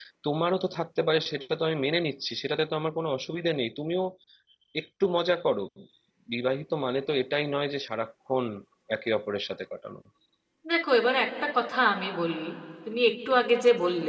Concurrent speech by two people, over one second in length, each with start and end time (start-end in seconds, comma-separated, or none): none